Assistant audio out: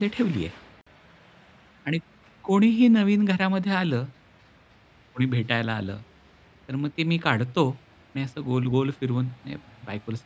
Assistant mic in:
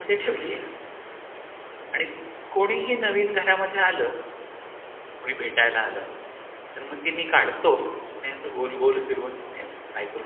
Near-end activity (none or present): none